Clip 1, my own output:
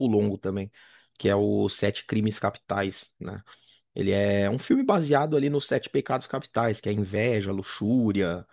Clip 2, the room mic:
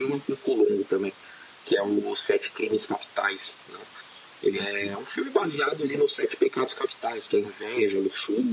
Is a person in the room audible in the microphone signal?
No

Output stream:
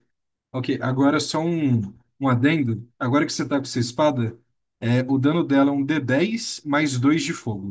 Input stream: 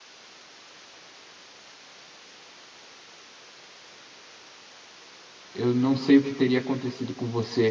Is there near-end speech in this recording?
Yes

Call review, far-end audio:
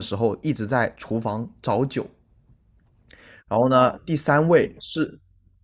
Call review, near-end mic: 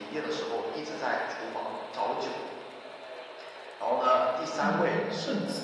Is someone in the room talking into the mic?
Yes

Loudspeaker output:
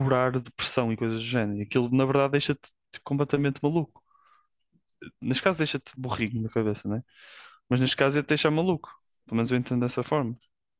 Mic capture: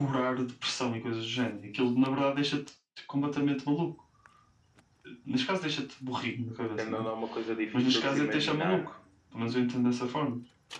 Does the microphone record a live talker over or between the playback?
Yes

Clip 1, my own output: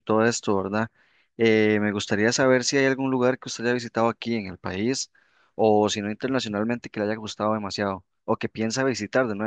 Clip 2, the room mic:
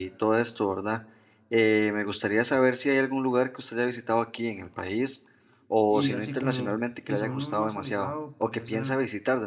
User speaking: Yes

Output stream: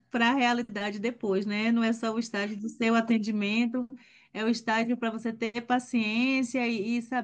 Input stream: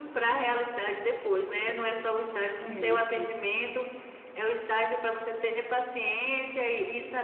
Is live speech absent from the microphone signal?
No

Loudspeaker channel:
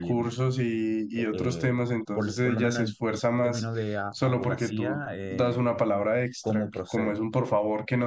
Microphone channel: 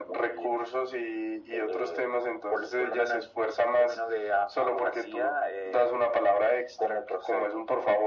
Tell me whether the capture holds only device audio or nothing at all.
Yes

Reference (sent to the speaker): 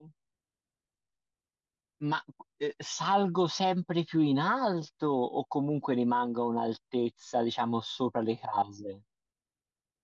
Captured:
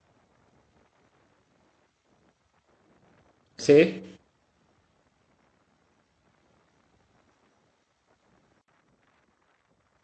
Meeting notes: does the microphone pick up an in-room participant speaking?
Yes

